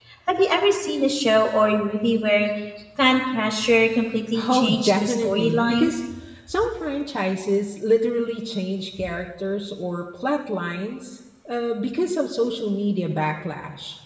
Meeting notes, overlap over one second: present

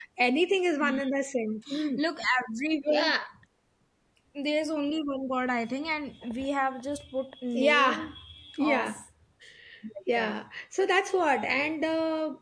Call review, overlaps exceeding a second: none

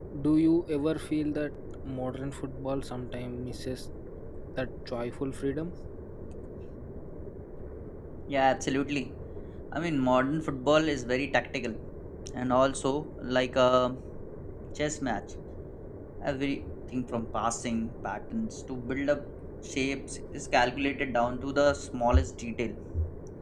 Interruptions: none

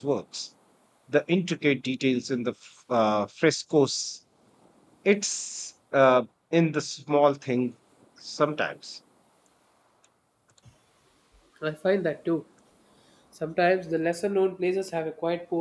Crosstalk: none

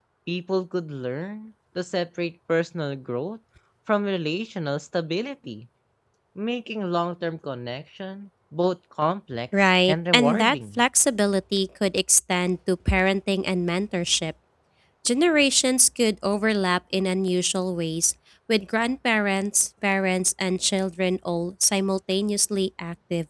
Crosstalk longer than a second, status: present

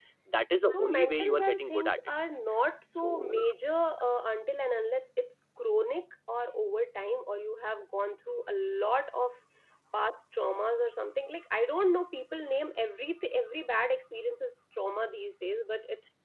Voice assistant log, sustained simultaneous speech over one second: present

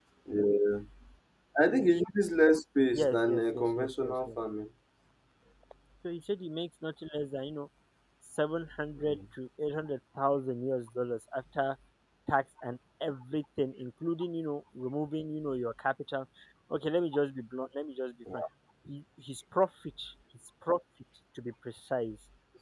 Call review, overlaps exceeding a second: present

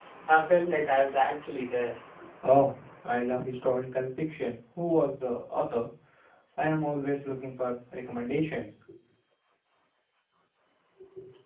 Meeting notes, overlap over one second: none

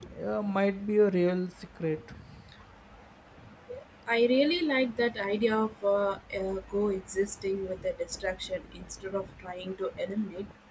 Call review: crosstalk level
none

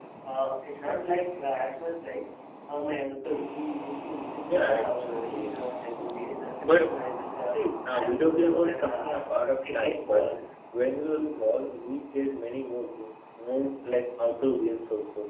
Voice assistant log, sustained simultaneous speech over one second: present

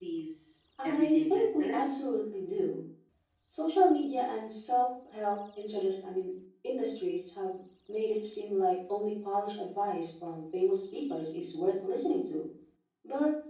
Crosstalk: present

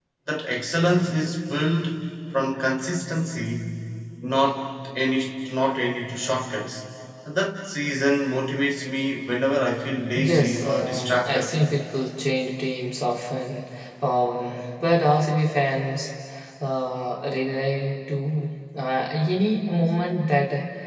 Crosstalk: present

